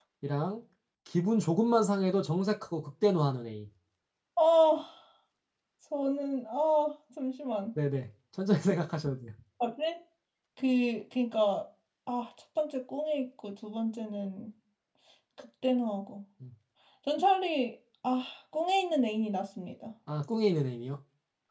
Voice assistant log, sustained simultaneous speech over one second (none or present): none